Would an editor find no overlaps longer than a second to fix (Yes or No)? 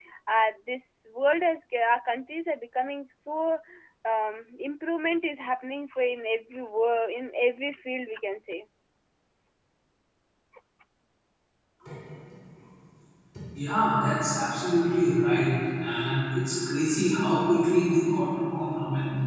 Yes